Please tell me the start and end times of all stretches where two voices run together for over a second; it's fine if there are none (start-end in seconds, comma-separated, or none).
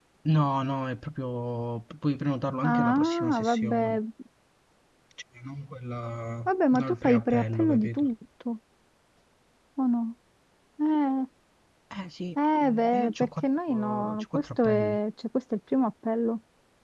2.6-4.0, 6.5-8.1, 12.6-15.0